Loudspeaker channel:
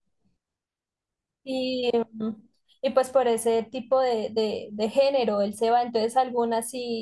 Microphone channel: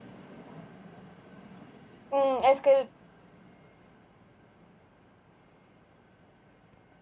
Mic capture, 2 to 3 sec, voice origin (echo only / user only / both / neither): user only